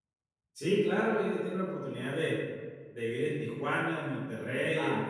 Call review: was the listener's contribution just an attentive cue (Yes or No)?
No